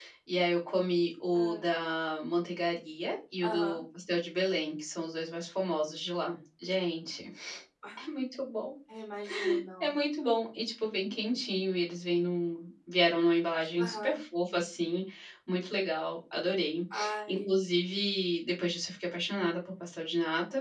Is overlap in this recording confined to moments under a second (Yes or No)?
Yes